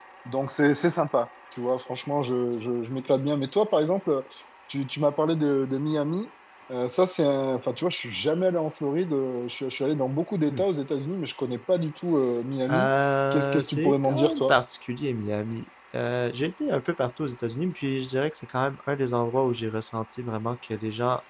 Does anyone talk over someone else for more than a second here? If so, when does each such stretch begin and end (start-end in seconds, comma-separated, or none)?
13.3-14.6